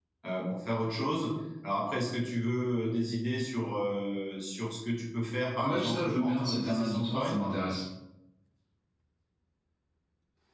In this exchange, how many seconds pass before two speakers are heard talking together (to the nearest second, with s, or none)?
6 s